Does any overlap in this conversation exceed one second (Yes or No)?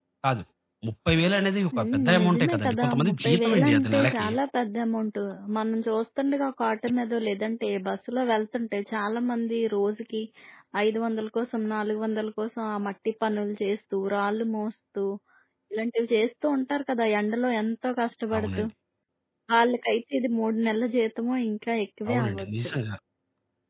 Yes